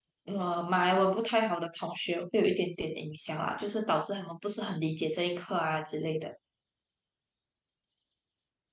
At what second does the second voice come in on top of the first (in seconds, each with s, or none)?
none